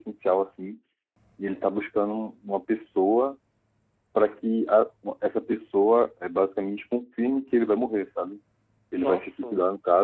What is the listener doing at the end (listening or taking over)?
listening